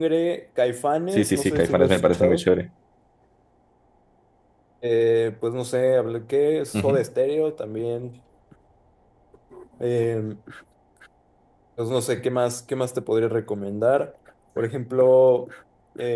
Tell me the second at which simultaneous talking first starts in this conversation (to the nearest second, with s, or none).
1 s